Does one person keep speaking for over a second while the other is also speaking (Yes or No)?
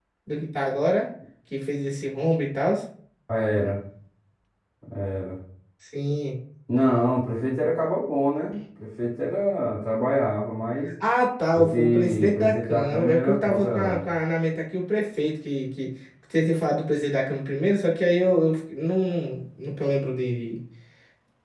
Yes